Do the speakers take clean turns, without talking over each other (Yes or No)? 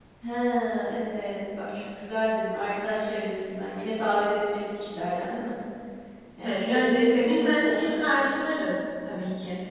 No